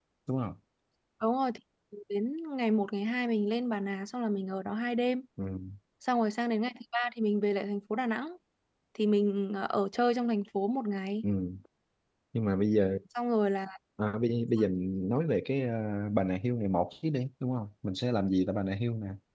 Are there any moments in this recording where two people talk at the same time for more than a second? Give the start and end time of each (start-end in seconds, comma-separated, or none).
none